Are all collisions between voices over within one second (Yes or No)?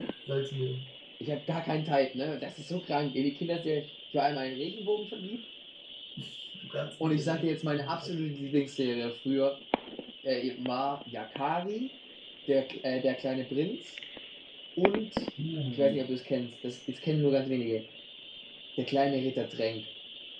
Yes